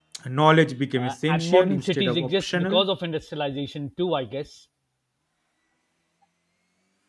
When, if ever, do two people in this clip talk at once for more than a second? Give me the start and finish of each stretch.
1.0-2.8

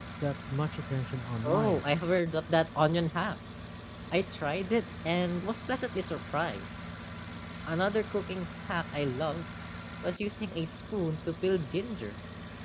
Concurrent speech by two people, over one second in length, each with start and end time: none

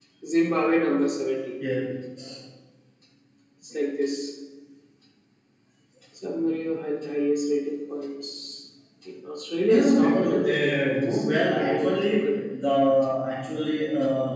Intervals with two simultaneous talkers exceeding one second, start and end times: 9.6-12.3

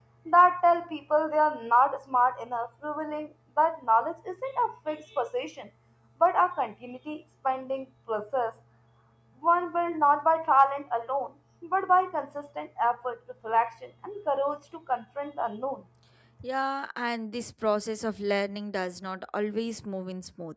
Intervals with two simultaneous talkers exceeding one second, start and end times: none

